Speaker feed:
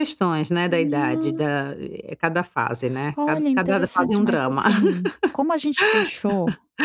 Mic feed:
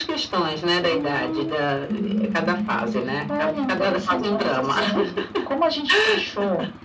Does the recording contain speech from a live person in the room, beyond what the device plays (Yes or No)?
Yes